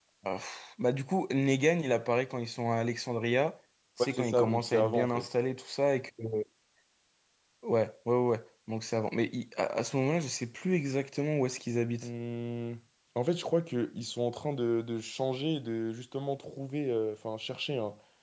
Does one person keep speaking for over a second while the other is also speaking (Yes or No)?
Yes